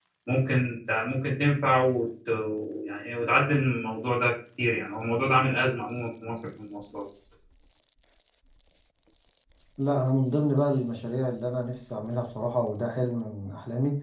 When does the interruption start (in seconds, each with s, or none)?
none